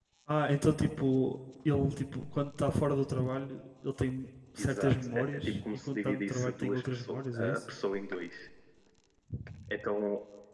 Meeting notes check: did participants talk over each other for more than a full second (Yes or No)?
Yes